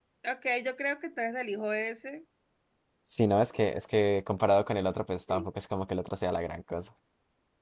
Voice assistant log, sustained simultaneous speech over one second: none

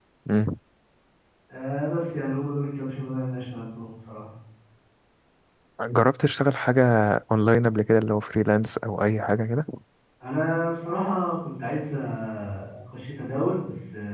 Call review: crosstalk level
none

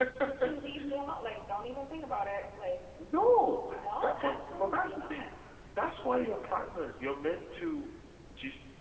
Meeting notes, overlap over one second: present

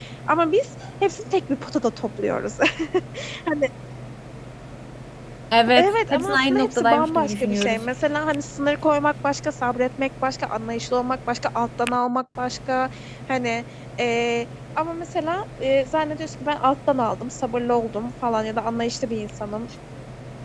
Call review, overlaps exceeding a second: present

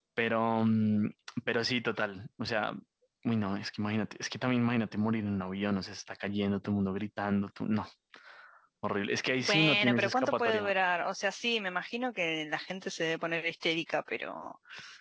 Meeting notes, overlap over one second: present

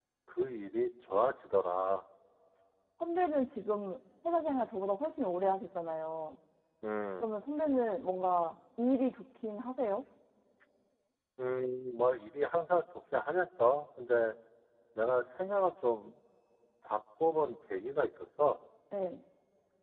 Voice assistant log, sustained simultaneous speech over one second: none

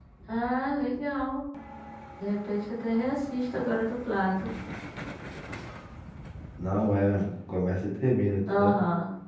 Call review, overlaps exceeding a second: none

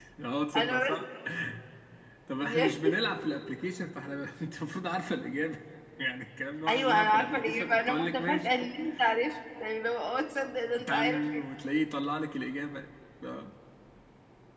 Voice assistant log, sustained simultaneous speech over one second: present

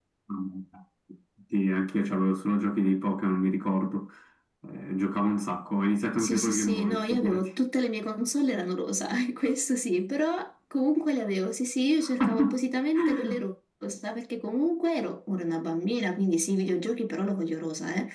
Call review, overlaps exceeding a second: present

